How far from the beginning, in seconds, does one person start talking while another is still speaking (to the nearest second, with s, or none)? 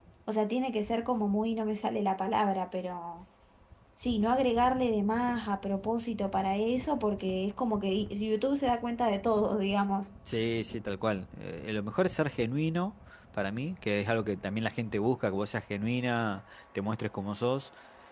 none